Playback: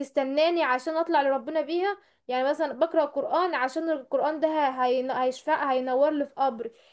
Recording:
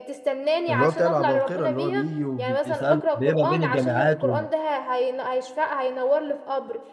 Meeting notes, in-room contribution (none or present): present